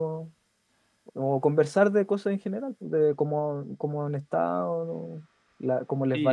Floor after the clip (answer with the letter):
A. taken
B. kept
A